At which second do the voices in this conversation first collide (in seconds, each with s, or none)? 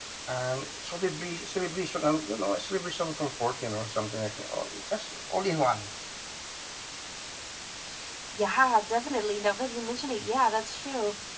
none